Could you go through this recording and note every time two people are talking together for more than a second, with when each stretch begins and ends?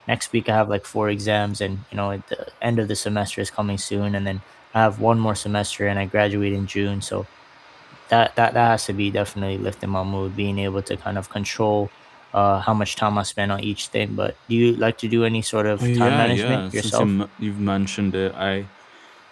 15.8-17.1

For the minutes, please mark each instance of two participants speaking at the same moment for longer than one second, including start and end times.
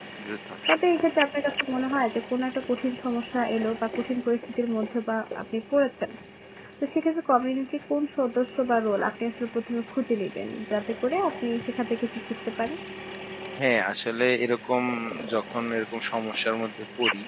none

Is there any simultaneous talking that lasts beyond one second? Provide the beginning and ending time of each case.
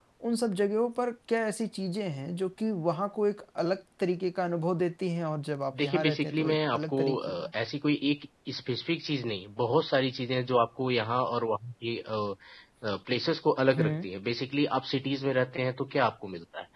5.7-7.5

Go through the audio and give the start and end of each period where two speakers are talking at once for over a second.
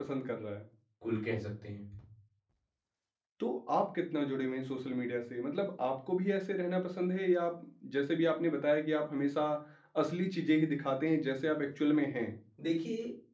none

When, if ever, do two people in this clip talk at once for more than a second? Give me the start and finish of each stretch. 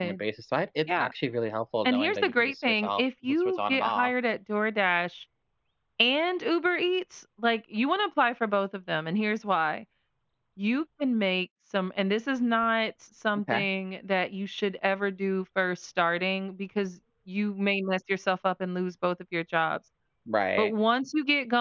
1.9-4.1

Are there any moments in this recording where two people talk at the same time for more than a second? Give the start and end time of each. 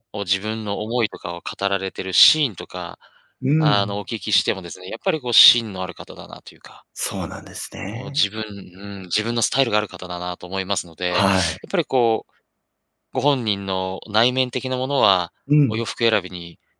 none

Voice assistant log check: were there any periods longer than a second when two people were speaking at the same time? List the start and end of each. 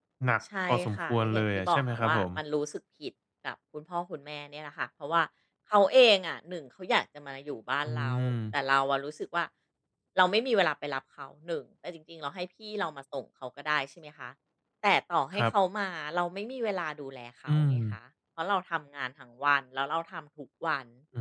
0.7-2.2

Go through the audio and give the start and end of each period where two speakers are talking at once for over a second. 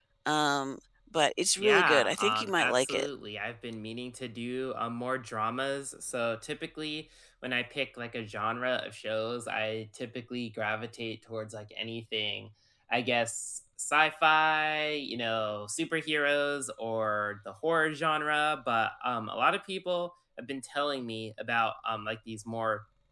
1.6-3.1

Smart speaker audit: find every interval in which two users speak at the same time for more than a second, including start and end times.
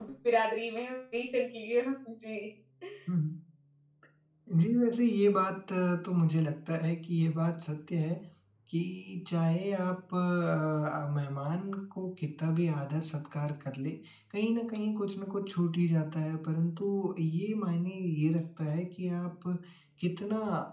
none

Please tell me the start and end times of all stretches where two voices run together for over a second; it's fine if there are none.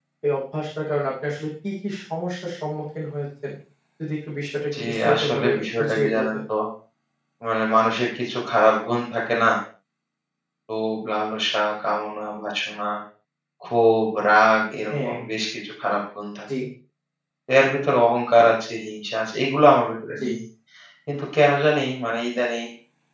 4.8-6.4

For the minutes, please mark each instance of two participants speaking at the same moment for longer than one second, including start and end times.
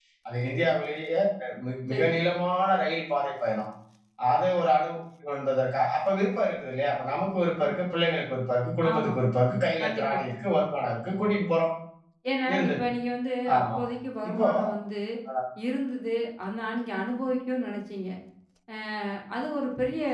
none

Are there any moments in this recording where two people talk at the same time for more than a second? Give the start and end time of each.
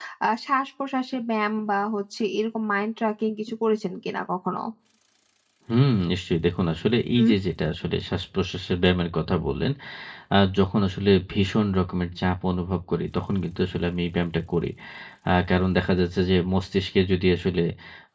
none

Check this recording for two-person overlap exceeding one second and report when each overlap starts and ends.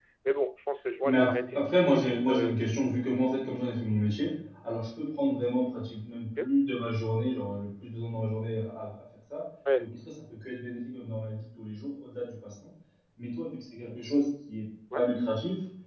1.0-2.6

